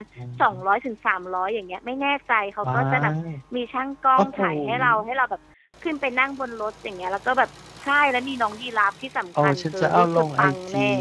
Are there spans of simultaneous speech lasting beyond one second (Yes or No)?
Yes